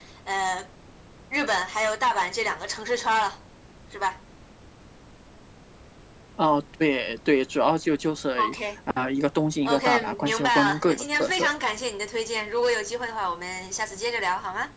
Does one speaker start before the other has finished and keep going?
Yes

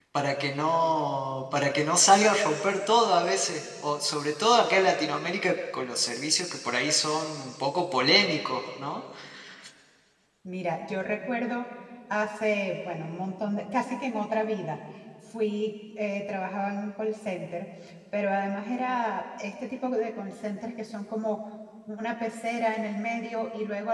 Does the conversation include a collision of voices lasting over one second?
No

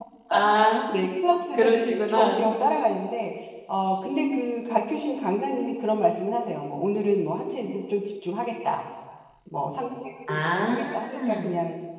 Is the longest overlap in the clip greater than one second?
Yes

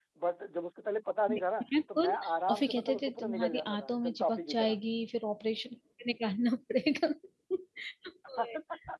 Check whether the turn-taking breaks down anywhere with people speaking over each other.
Yes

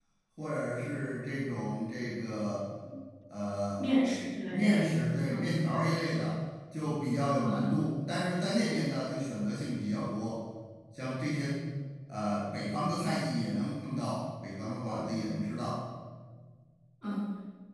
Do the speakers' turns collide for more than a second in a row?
No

